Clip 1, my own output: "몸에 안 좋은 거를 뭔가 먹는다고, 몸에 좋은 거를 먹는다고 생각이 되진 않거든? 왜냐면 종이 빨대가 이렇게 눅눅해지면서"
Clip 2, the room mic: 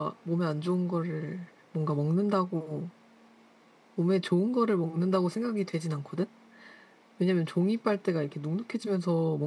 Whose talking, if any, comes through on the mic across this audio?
echo only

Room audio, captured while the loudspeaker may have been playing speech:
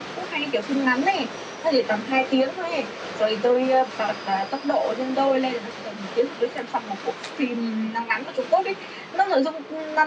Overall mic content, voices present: echo only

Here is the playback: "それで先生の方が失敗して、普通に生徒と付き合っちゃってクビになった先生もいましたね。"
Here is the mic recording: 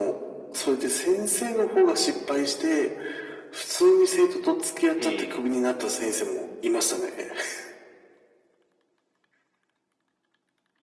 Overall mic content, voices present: both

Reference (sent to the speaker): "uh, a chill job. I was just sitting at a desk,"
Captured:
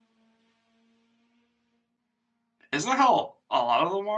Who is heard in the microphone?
user only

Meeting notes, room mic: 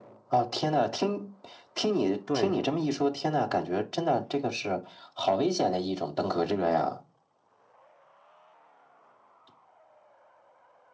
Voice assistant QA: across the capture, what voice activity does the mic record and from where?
both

